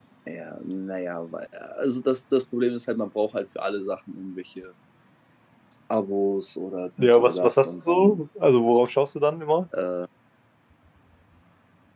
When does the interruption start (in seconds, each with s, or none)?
7.0 s